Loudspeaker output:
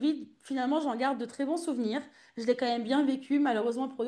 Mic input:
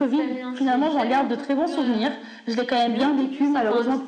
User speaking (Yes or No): Yes